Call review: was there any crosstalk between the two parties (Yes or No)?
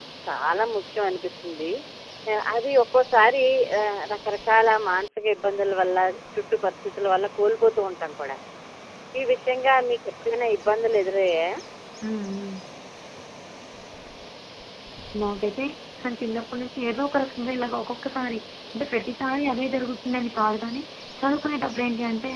No